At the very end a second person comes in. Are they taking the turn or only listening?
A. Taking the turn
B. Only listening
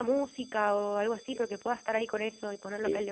A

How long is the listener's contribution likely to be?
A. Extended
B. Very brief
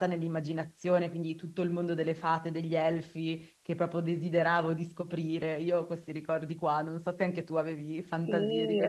A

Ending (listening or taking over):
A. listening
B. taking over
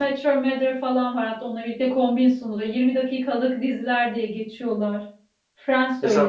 B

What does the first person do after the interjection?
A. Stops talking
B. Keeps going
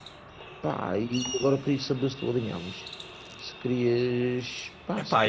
A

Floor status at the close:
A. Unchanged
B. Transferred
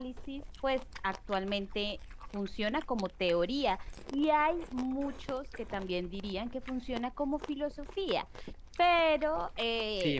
B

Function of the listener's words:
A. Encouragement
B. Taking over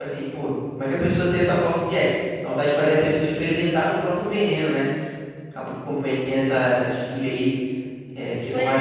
B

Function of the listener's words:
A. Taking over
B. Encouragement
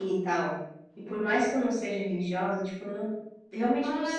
A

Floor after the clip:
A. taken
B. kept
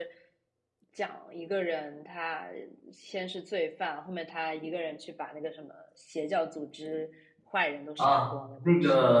A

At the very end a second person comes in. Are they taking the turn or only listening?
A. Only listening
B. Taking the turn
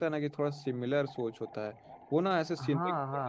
A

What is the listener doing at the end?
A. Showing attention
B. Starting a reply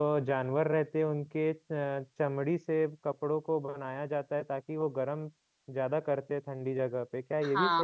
B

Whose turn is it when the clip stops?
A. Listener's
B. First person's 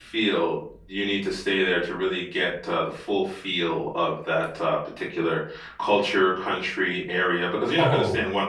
B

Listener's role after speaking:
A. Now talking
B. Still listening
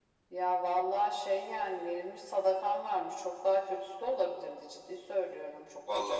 A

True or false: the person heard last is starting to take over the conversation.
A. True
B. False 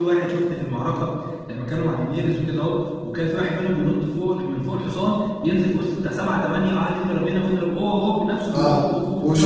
A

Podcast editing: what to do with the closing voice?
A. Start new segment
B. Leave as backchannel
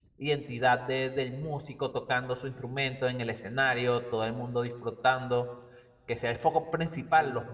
B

